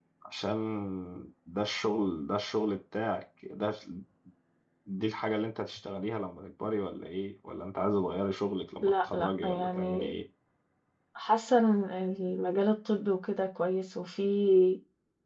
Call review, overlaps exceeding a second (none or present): present